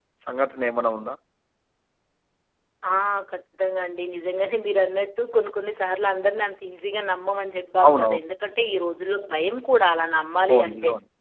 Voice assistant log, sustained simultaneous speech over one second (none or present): none